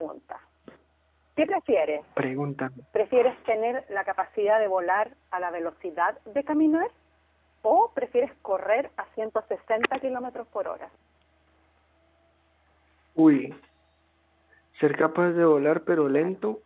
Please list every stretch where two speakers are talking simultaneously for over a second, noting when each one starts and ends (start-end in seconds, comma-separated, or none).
none